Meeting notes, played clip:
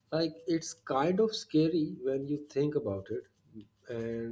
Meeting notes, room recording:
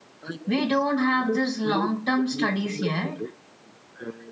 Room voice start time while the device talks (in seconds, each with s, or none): 0.5 s